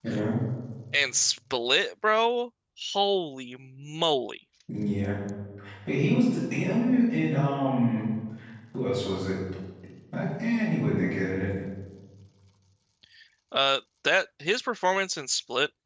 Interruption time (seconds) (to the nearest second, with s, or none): none